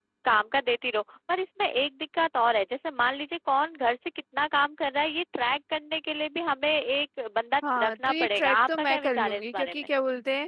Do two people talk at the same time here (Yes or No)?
Yes